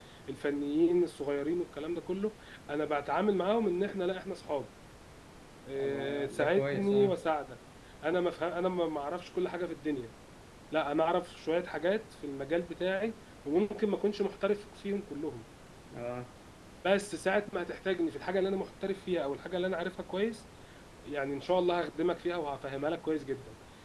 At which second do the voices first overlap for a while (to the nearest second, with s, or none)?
6 s